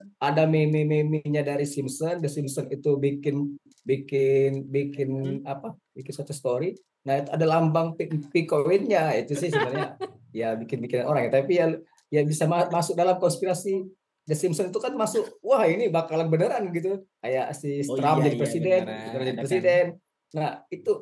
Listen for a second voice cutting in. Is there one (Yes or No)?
Yes